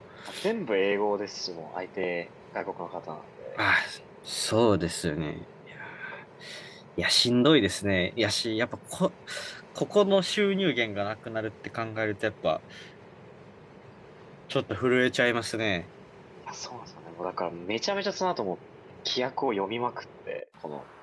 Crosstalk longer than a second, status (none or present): none